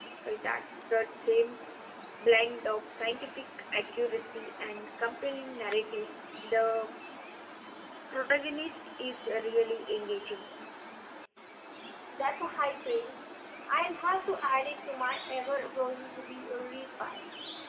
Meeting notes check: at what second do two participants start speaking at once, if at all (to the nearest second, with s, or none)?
none